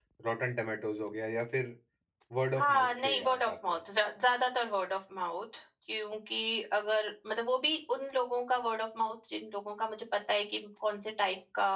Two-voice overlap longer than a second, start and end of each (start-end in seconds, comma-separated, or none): 2.6-3.8